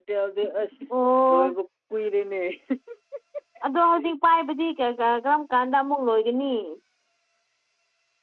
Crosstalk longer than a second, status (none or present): none